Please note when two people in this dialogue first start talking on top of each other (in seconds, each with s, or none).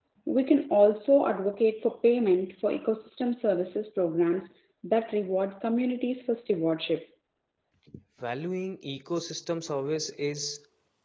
none